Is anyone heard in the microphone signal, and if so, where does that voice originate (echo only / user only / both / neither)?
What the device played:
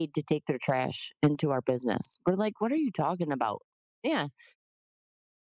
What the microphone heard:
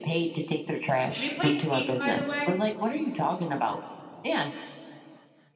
both